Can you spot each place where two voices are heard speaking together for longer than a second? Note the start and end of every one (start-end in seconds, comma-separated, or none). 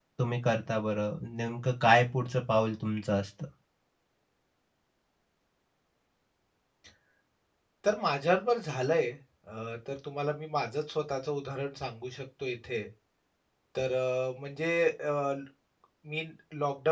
none